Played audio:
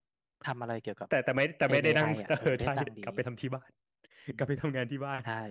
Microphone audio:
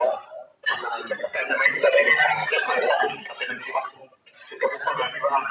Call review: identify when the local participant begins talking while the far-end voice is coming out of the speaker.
none

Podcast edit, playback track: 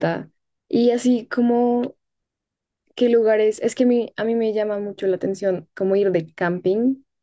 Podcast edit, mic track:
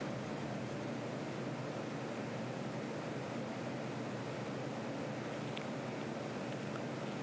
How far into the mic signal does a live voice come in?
none

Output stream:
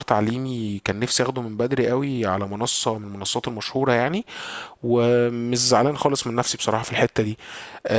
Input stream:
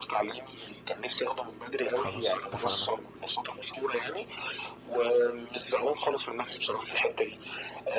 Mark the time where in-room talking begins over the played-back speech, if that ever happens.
2 s

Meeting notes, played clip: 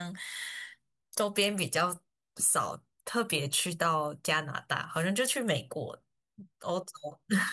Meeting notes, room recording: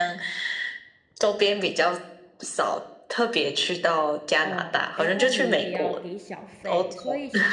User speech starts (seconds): 4 s

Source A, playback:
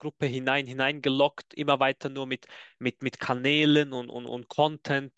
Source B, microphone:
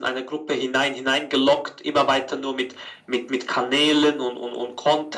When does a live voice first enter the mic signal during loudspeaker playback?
none

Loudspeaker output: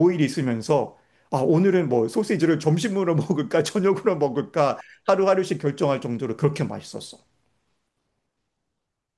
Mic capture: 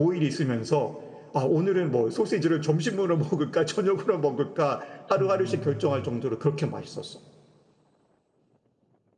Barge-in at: 5 s

